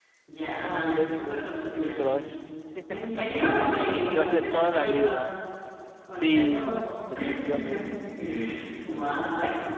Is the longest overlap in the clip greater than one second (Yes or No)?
Yes